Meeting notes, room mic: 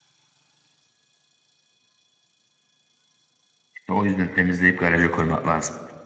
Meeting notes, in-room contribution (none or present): present